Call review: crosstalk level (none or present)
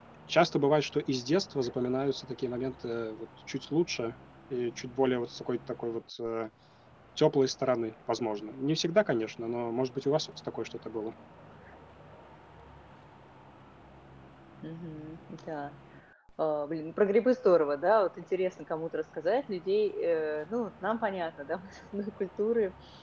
none